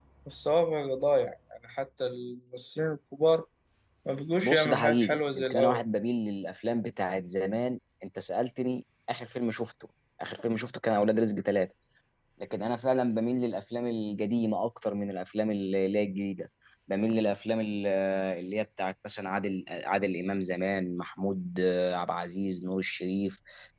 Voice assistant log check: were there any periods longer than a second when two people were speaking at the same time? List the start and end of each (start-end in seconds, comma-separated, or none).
4.4-5.8